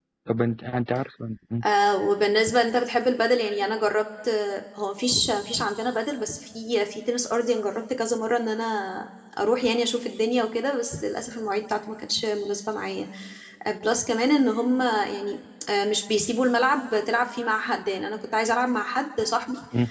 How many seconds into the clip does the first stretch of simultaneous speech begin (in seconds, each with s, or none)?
none